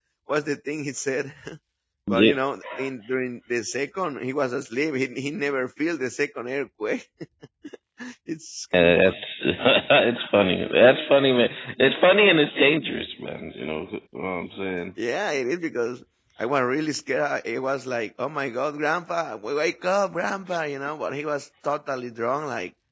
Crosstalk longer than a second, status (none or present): none